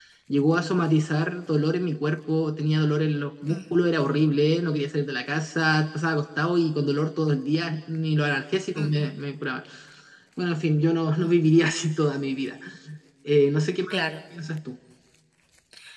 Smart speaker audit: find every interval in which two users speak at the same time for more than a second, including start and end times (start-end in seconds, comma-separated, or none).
none